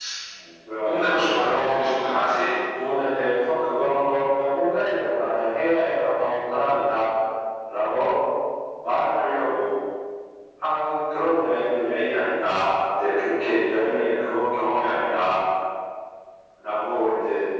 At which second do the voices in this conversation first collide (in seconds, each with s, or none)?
0.8 s